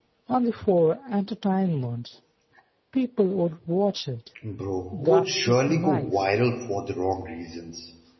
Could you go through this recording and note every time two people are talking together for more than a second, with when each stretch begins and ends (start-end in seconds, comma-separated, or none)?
4.9-6.3